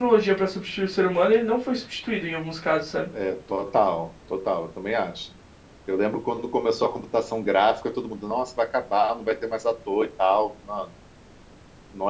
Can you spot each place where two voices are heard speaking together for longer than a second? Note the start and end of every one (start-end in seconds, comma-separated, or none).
none